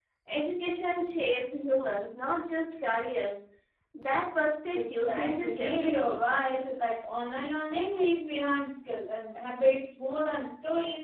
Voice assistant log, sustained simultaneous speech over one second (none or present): present